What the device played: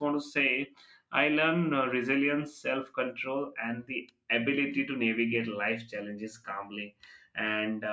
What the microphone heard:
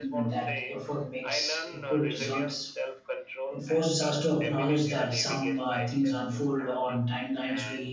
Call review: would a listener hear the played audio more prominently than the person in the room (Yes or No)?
No